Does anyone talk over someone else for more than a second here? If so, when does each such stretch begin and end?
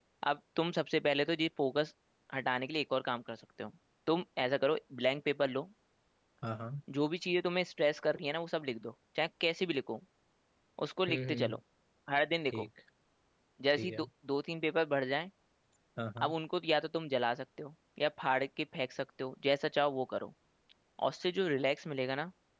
none

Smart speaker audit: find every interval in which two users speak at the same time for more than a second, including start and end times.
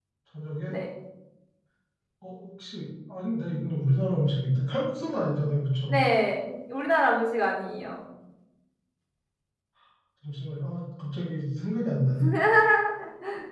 none

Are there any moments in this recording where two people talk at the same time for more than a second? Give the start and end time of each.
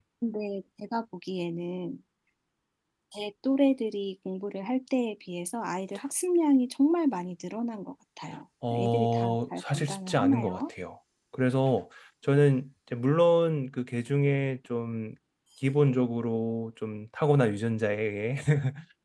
8.7-10.7

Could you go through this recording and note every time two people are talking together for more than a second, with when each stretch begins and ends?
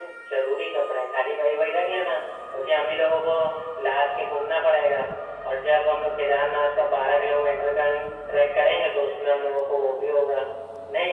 none

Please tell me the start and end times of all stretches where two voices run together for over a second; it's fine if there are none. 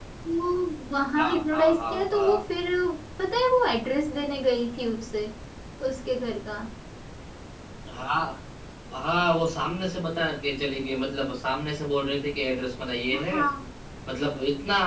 1.2-2.4

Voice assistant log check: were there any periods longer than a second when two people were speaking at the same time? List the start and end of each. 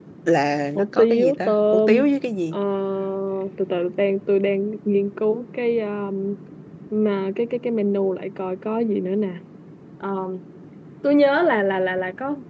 0.8-2.0

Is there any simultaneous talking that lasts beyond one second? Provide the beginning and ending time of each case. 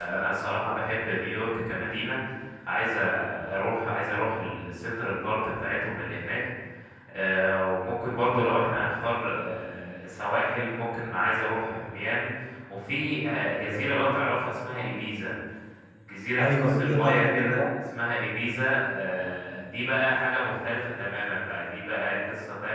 16.4-17.6

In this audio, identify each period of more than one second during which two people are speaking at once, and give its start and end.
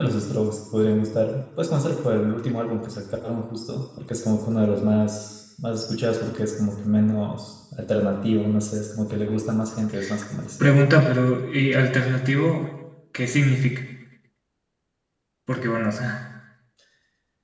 none

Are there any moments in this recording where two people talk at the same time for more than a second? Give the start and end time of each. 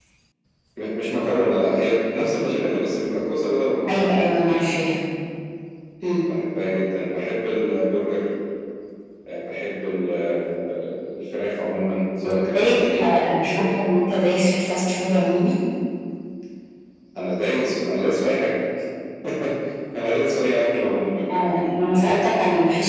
12.3-13.9

